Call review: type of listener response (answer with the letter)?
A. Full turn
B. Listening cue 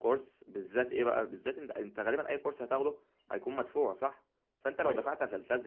B